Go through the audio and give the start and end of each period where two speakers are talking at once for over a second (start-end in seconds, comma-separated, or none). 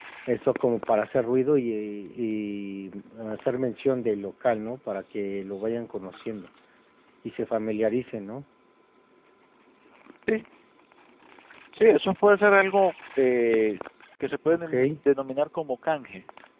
none